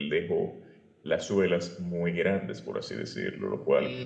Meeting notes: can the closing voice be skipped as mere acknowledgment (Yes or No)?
No